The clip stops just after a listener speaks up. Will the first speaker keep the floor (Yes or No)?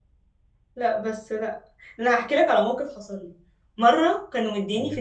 Yes